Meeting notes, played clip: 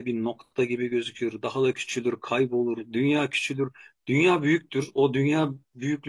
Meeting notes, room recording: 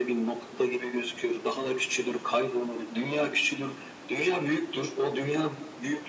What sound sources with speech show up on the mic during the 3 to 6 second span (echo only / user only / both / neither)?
echo only